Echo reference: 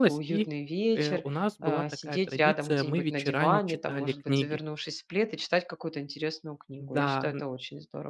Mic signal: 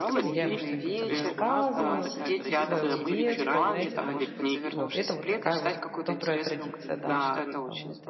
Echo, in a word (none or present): present